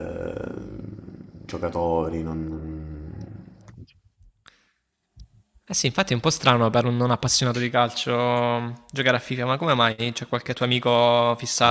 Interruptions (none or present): none